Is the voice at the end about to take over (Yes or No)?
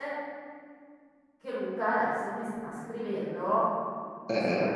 No